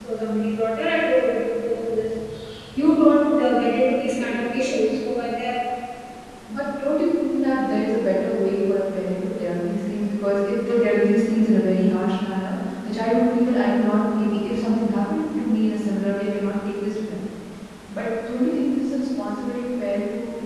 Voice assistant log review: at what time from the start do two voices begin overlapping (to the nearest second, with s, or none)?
none